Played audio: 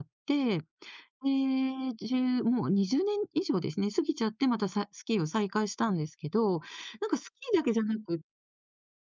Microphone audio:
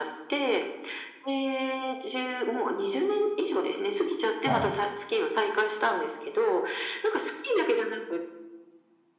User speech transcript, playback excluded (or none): はい。